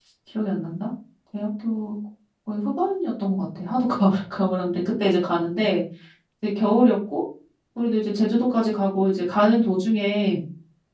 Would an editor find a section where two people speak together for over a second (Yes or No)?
No